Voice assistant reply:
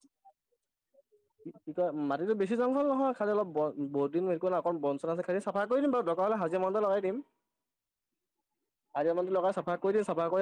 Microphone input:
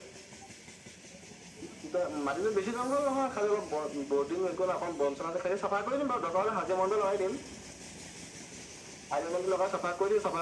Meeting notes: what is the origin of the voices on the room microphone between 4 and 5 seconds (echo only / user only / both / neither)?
echo only